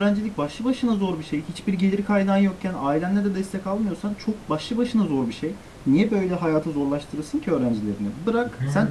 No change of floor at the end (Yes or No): Yes